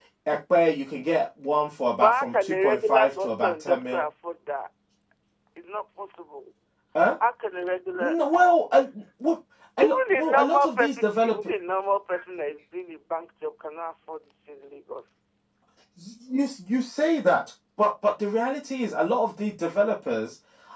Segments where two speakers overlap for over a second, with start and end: 2.0-4.0, 9.8-11.3

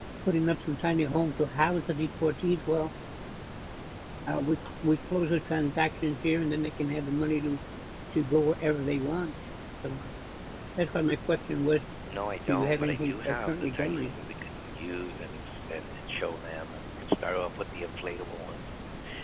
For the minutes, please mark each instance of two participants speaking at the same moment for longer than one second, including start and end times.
12.5-14.1

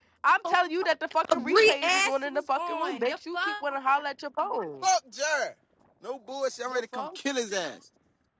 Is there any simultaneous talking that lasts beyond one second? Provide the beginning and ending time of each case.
1.3-3.5

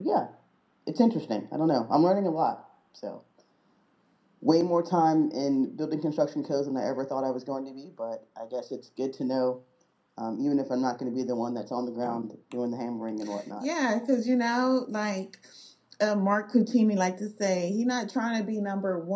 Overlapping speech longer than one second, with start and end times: none

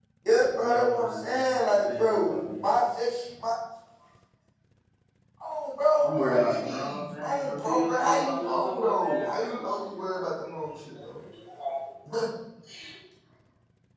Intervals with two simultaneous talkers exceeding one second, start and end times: 0.6-2.6, 6.0-9.6

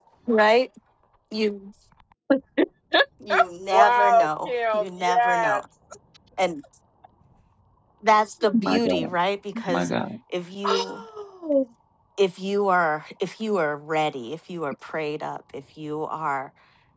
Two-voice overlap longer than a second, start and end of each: 3.7-5.6

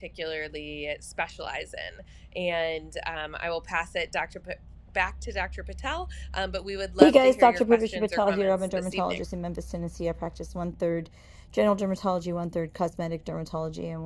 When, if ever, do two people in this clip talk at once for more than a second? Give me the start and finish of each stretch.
7.0-9.2

